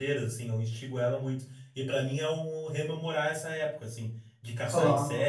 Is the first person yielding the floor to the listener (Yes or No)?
No